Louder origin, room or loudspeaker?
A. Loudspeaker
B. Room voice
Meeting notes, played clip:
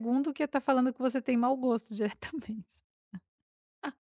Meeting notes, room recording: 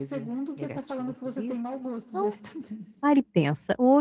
B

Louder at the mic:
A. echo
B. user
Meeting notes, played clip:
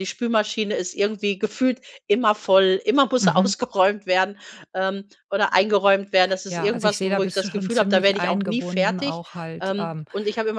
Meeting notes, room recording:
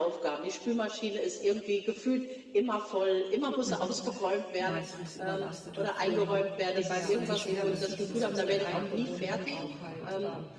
A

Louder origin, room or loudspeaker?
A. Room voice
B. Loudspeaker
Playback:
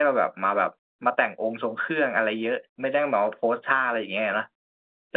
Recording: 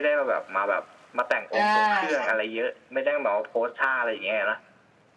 B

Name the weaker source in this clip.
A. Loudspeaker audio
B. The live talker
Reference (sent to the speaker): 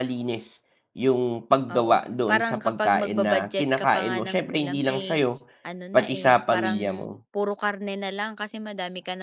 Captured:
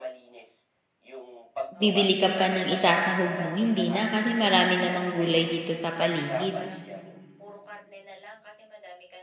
A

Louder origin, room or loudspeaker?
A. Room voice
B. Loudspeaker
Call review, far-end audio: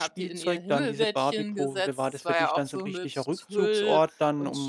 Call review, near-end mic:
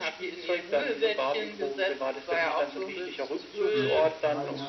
B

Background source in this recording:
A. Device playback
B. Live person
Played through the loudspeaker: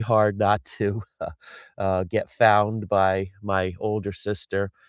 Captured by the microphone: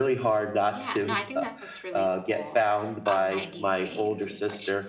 B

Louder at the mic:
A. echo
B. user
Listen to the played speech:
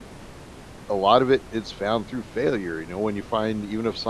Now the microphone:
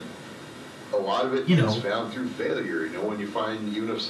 B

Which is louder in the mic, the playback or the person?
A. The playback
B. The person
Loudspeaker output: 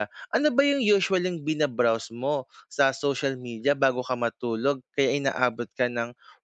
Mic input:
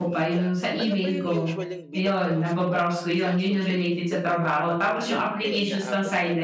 B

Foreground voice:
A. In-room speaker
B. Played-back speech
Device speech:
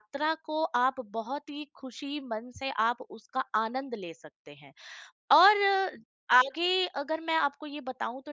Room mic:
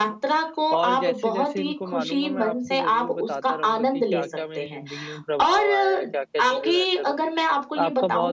B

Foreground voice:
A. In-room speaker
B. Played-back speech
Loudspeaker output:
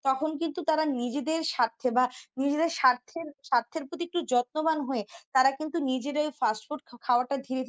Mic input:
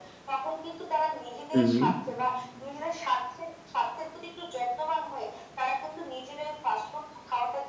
A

